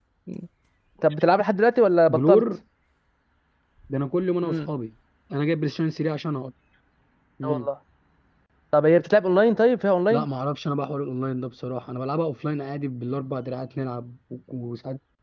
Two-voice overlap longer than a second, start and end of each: none

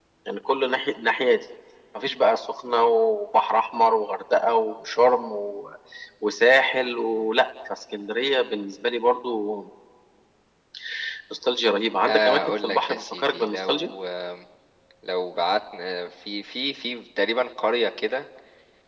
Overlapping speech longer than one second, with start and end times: 12.1-13.9

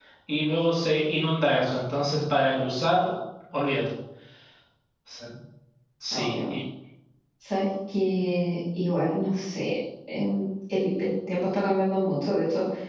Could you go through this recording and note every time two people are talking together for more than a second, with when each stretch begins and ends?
none

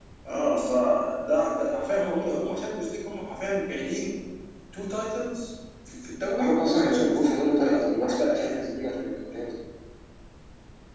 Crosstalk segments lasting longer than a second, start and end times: 6.4-8.6

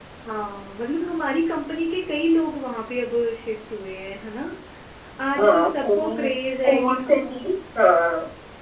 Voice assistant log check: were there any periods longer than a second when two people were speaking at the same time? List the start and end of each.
5.4-7.2

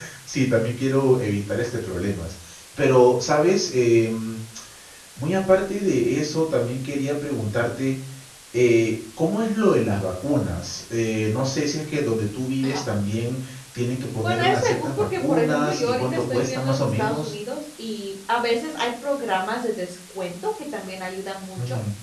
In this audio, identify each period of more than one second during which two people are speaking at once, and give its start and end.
14.2-17.3

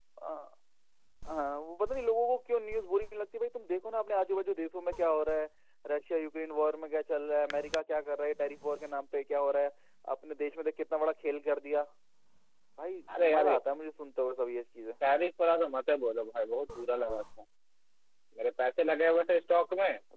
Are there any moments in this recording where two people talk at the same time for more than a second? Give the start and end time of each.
none

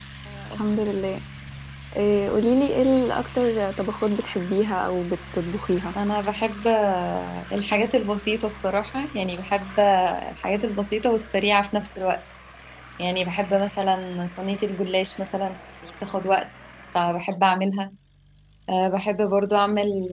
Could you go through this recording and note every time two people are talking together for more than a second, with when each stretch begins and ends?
none

